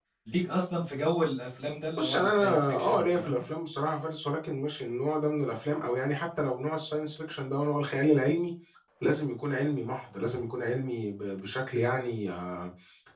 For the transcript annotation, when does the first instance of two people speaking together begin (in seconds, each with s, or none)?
2.0 s